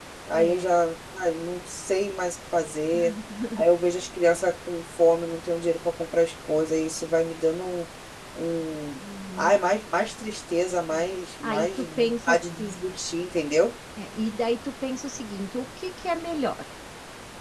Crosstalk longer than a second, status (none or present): present